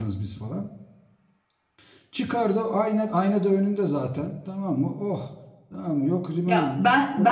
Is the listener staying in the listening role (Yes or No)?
No